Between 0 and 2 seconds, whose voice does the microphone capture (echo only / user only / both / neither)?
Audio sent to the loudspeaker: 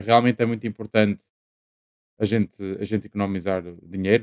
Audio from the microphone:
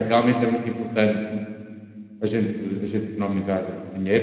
echo only